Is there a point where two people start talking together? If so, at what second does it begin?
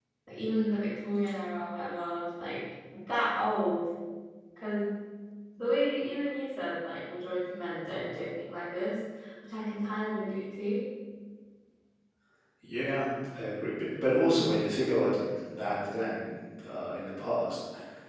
none

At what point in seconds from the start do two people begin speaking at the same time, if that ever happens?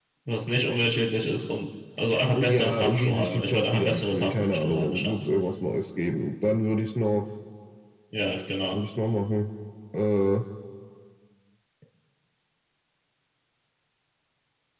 2 s

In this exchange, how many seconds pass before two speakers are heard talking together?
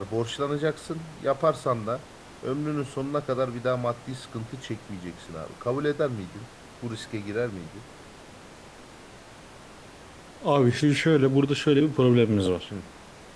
none

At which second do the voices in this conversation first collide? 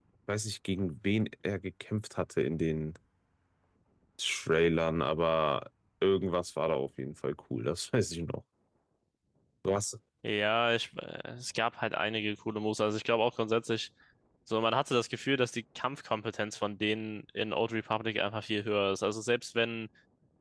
none

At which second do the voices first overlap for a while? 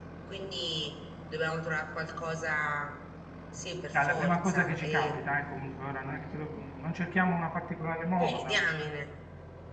4 s

